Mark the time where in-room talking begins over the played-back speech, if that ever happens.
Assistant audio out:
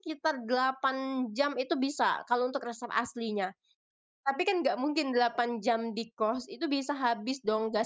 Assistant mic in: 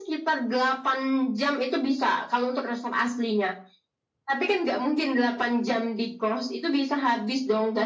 none

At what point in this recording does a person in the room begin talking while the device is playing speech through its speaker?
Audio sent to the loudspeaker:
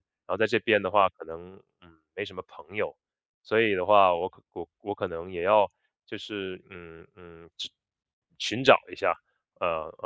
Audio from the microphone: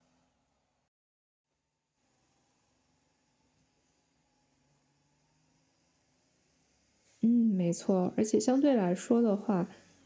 7 s

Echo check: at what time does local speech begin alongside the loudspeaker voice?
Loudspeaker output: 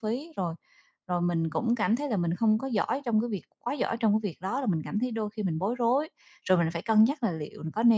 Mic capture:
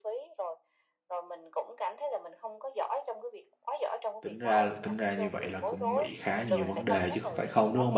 4 s

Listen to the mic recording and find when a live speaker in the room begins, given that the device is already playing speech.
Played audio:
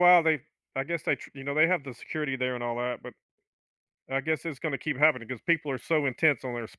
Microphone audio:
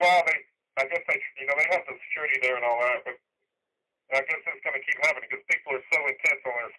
none

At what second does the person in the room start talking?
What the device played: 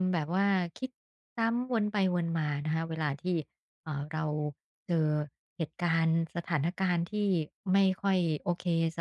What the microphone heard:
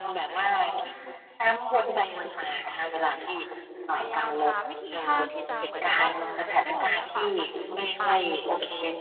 4 s

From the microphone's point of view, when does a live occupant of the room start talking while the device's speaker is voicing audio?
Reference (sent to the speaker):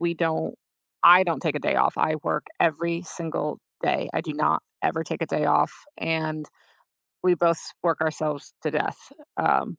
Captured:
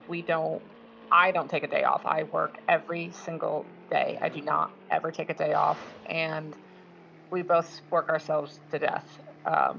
none

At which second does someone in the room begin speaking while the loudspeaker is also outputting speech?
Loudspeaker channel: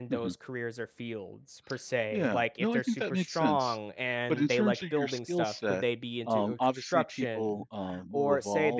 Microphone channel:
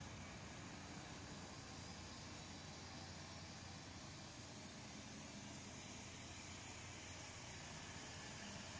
none

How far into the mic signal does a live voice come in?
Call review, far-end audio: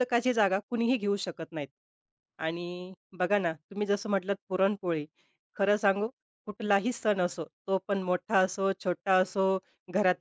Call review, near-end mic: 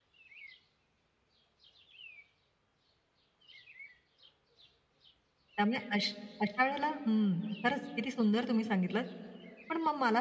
6 s

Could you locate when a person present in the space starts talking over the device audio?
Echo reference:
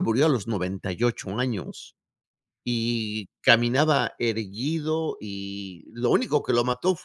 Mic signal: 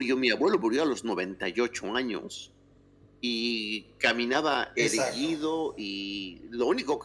5 s

